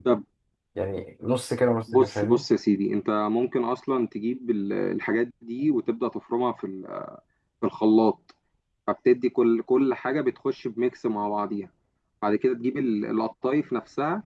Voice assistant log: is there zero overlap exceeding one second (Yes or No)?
Yes